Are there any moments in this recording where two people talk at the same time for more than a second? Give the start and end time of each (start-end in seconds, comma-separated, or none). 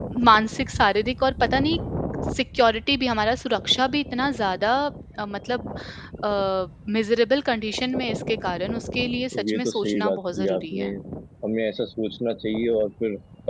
9.5-10.9